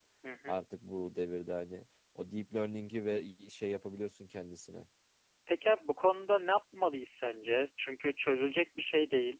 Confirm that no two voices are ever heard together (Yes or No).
Yes